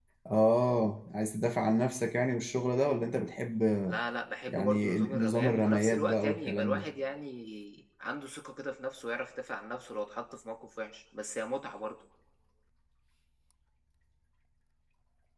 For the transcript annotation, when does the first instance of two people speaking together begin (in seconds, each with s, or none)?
4.5 s